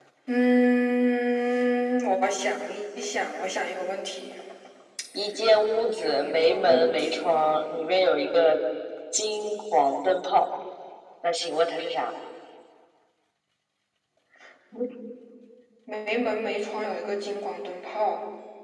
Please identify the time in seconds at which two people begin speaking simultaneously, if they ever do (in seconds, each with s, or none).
6.0 s